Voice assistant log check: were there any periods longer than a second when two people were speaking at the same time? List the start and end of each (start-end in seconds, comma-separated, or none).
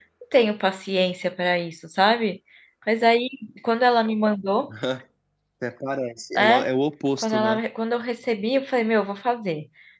none